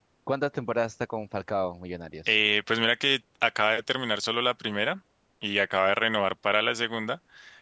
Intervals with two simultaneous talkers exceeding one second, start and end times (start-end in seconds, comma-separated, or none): none